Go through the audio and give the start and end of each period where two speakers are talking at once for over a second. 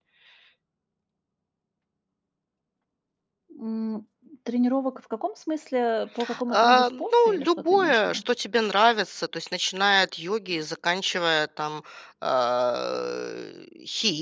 6.5-8.2

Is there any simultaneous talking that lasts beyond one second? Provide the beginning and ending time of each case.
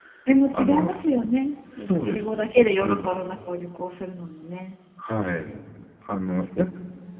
1.8-3.2

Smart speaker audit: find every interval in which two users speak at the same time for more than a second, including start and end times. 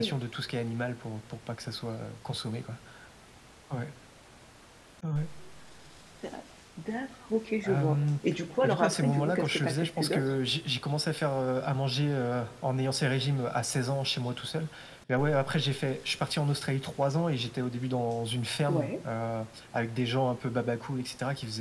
8.6-10.3

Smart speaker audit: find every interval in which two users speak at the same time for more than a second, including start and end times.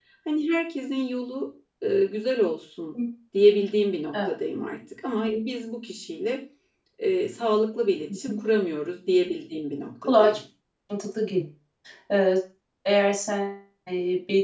none

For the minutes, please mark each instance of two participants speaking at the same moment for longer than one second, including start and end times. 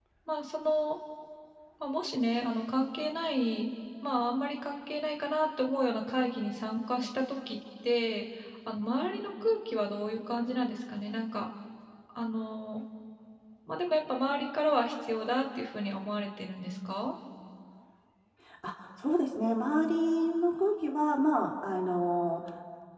none

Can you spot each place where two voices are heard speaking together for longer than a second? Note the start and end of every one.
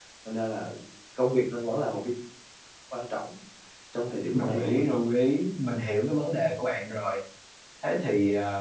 none

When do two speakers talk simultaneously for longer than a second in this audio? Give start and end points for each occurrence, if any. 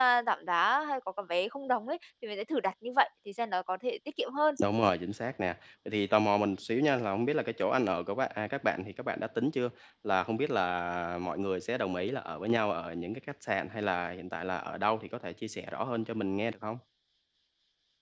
none

